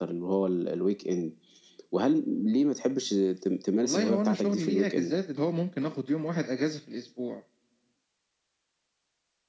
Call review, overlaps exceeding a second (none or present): present